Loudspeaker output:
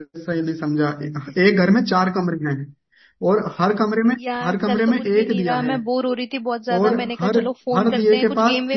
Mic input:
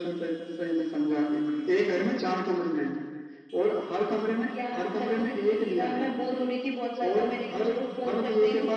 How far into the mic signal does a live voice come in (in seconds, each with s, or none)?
none